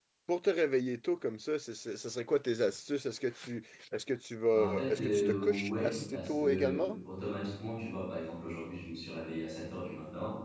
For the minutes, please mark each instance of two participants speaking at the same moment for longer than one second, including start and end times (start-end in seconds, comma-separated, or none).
4.5-7.0